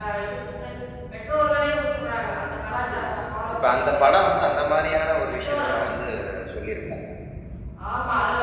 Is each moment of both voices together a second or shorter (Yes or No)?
Yes